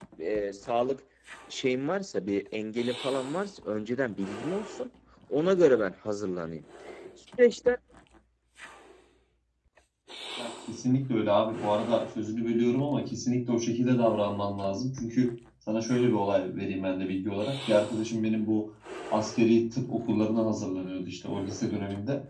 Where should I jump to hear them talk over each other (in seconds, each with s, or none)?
none